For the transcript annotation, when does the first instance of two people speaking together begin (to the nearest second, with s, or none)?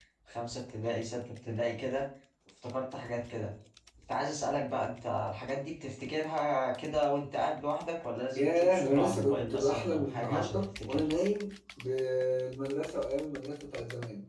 8 s